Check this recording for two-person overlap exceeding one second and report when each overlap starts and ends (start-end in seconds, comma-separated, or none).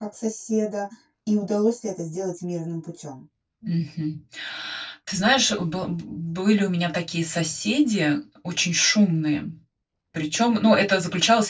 none